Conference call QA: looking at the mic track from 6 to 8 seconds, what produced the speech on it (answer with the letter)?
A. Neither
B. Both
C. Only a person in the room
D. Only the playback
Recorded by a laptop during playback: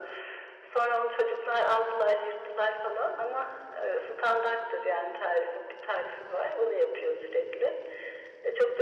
D